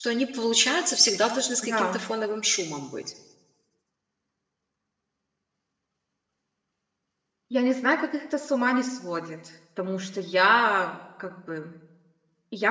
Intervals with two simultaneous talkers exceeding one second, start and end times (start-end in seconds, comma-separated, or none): none